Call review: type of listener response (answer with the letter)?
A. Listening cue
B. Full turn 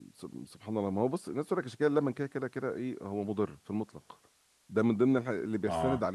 A